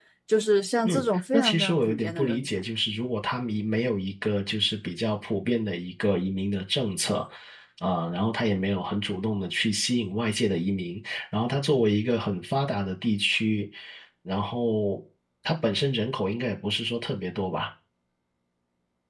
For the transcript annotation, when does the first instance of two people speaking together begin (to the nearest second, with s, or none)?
1 s